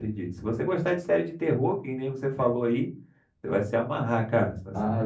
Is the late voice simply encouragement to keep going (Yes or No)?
No